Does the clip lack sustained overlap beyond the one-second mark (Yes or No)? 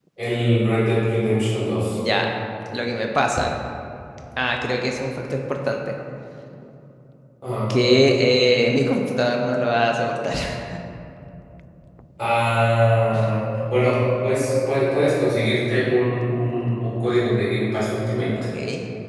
Yes